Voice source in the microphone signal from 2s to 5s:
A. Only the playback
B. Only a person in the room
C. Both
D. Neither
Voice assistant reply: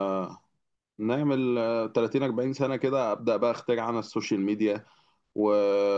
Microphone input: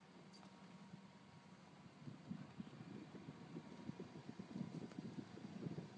D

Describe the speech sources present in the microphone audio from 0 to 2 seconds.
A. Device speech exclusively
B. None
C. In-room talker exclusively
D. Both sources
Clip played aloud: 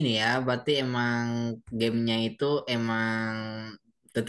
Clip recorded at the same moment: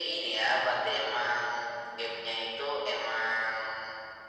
A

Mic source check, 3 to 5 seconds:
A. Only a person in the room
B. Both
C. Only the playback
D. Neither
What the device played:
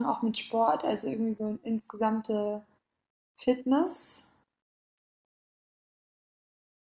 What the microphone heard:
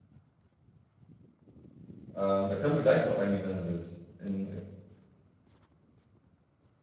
A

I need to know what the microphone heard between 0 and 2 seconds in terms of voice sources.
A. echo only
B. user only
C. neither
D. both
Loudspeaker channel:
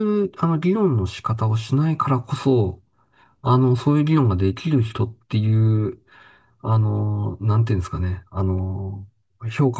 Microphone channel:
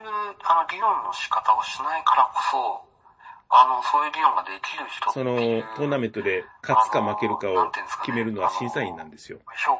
A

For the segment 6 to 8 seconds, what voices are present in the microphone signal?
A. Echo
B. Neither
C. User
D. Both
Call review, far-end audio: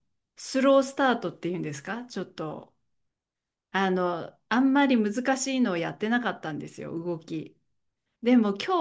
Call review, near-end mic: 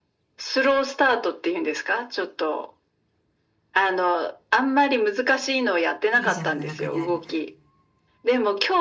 D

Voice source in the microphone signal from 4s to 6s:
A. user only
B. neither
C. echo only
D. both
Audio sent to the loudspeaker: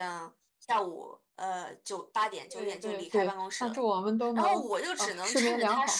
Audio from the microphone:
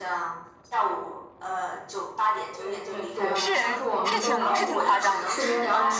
D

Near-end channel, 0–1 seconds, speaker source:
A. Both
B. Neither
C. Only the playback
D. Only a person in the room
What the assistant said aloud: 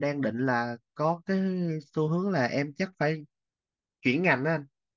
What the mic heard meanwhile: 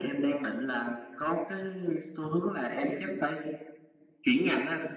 C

